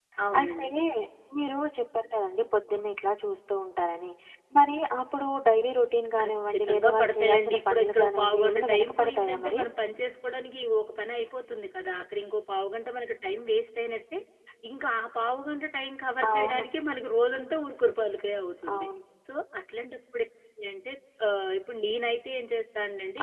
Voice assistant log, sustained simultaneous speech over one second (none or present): present